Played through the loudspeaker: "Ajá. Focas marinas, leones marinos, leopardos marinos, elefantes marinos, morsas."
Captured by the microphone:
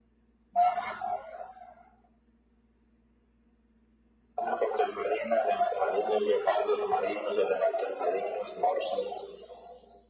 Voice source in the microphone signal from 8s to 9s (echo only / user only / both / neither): echo only